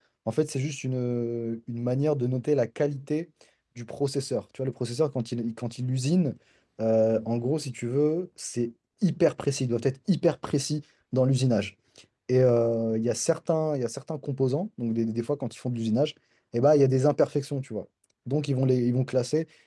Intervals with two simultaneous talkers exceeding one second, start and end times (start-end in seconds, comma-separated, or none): none